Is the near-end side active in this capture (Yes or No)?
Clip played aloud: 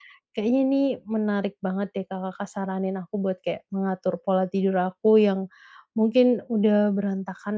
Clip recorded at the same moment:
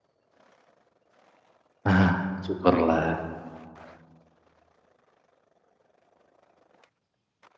Yes